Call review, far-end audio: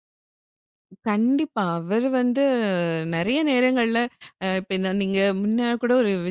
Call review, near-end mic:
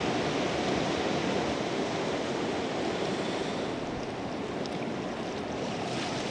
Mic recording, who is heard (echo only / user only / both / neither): neither